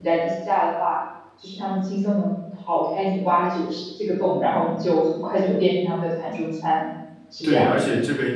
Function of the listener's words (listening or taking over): taking over